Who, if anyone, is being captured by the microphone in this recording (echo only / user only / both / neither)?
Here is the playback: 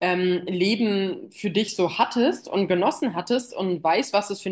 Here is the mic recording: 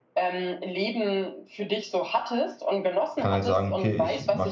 both